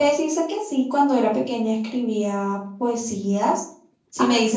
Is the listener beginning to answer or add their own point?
No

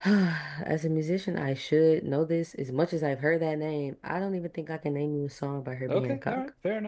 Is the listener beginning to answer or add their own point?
Yes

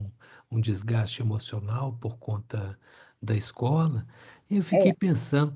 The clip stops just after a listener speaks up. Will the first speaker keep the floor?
Yes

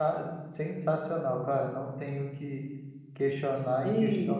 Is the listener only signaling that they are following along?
No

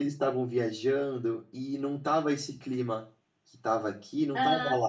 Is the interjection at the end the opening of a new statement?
Yes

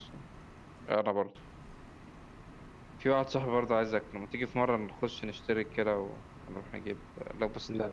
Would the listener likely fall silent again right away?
Yes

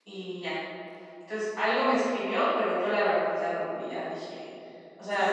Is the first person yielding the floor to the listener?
Yes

